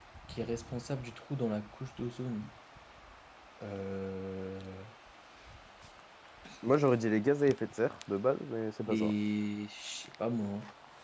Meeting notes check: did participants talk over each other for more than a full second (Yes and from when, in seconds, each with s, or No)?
No